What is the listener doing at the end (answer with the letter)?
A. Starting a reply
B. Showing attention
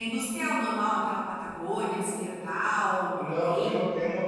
A